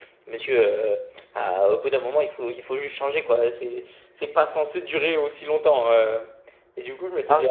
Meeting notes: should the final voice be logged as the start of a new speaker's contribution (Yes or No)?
No